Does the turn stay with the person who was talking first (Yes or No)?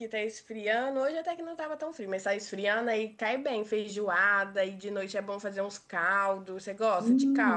No